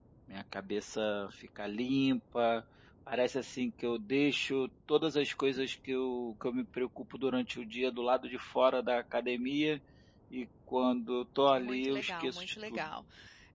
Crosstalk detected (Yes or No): Yes